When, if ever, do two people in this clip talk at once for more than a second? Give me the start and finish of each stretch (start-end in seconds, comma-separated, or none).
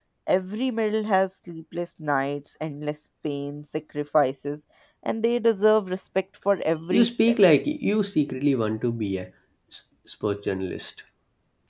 none